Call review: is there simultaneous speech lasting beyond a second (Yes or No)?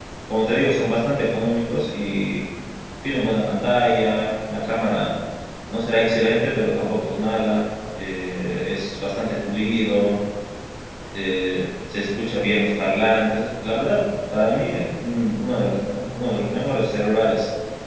No